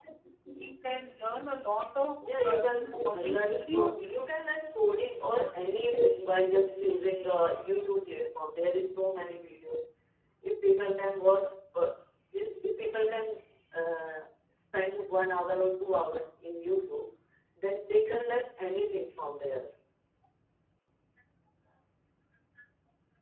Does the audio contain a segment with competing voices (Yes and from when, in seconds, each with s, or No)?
Yes, from 2.2 s